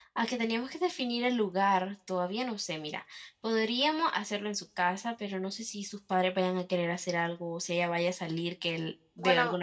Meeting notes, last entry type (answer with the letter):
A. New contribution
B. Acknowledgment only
A